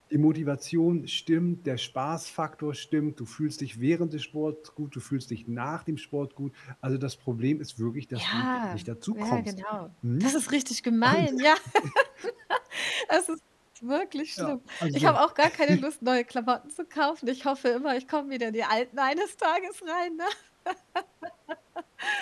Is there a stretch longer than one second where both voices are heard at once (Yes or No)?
Yes